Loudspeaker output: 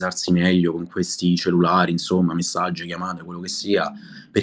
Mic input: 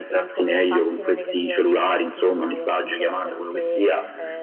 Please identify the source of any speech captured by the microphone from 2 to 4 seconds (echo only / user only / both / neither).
both